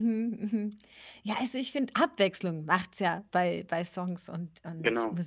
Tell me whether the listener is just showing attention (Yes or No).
Yes